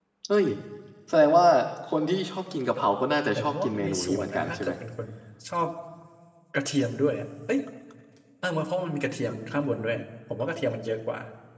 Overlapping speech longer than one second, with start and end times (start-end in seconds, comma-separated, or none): 3.4-4.7